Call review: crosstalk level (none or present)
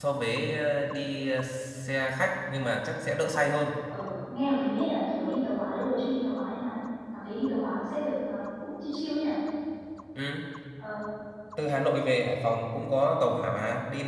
none